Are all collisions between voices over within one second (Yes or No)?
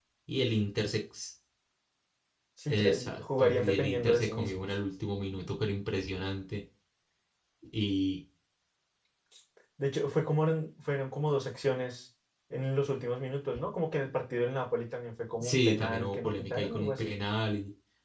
No